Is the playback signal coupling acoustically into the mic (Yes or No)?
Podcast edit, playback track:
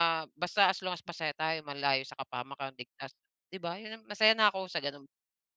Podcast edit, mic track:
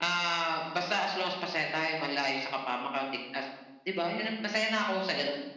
Yes